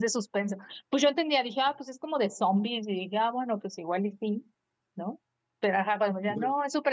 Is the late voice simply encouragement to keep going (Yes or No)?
Yes